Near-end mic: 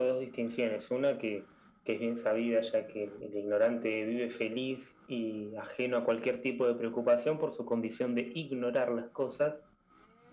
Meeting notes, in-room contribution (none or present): none